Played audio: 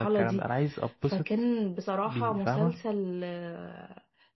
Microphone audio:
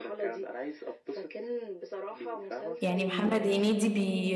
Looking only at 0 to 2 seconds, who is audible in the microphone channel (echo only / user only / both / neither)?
echo only